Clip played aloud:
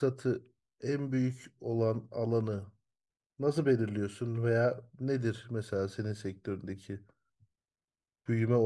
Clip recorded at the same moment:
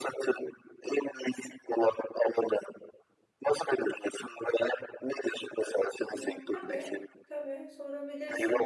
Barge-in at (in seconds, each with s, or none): 6.1 s